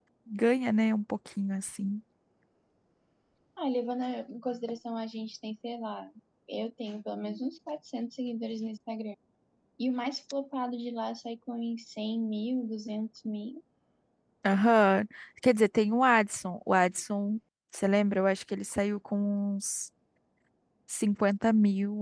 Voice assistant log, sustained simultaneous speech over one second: none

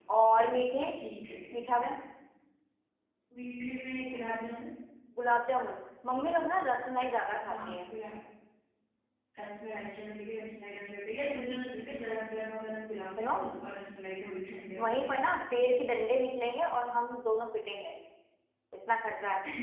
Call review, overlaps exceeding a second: none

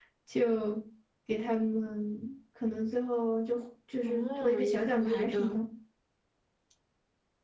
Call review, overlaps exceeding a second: present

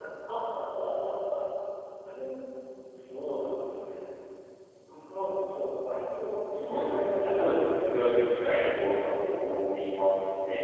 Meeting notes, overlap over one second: present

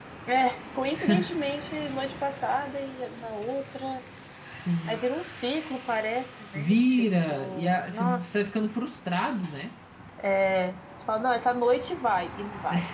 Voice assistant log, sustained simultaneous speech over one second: present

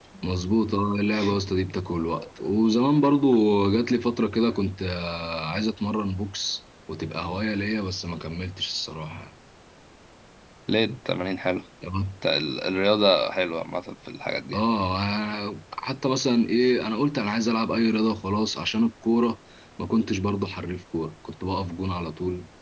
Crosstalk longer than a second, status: none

